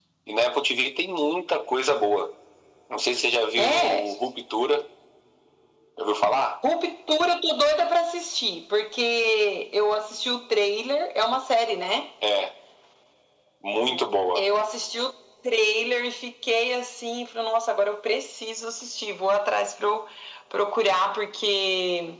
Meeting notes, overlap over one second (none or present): none